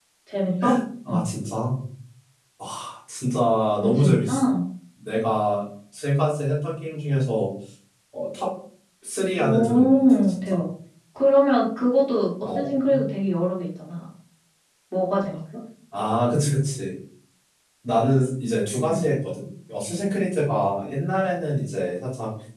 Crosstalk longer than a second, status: present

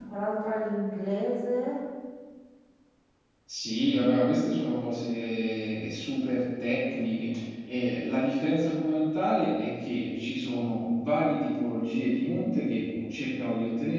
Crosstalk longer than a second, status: none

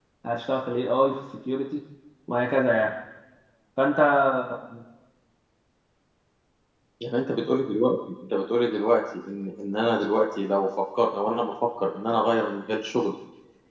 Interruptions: none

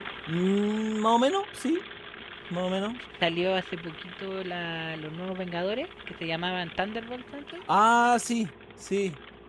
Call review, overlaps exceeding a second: none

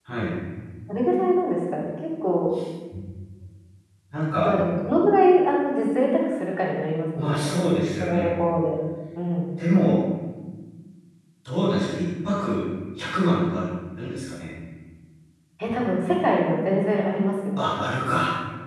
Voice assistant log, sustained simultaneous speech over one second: none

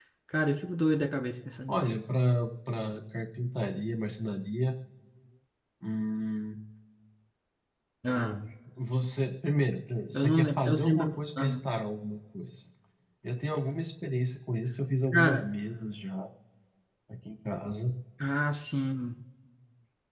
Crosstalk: present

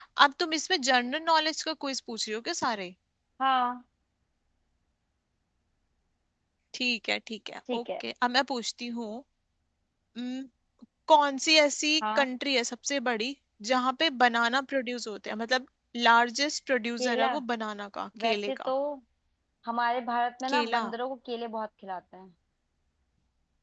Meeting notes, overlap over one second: none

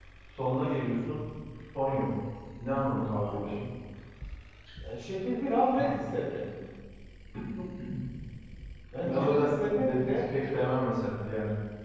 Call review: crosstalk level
present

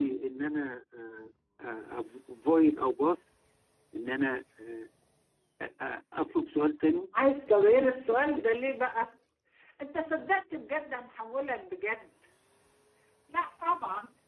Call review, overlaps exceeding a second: none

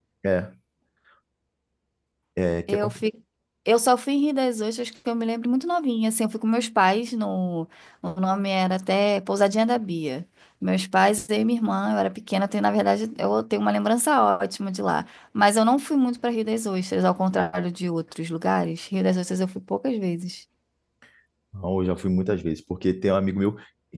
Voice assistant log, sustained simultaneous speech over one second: none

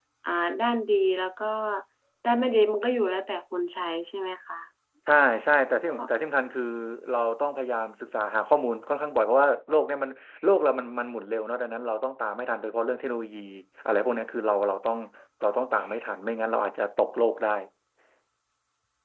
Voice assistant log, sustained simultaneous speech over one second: none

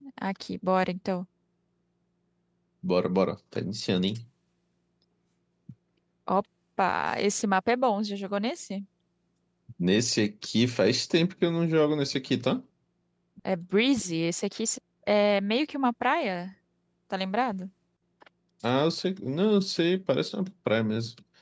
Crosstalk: none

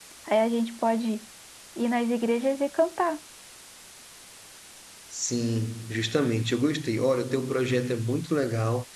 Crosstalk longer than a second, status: none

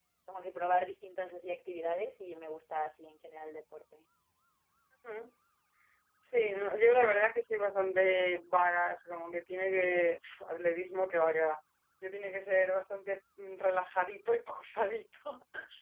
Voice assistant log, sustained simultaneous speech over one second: none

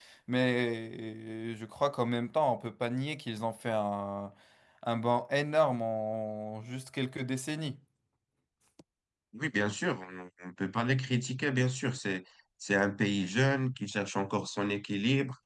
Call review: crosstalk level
none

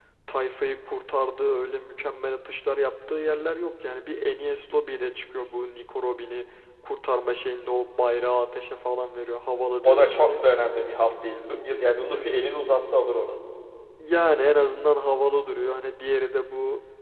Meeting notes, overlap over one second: none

